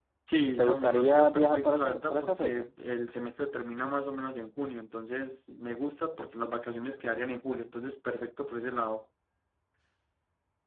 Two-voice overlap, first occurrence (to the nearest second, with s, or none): 1 s